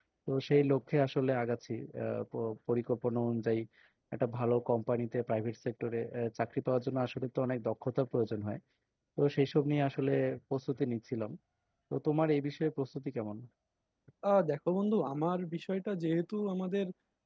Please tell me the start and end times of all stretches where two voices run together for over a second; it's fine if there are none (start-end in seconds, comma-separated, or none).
none